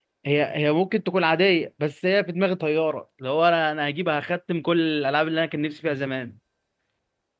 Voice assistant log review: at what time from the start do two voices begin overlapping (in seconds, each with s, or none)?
none